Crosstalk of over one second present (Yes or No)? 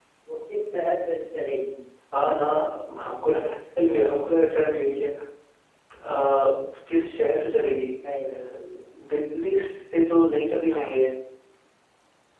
No